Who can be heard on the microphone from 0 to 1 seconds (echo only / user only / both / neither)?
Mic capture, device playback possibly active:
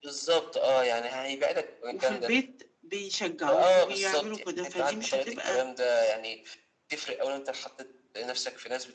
echo only